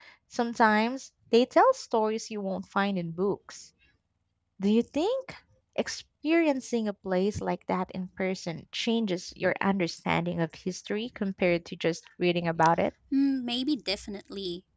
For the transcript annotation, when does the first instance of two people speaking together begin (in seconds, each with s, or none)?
none